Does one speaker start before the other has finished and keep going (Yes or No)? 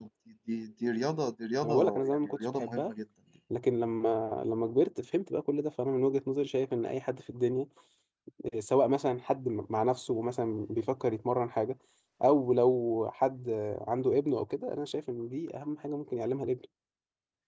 Yes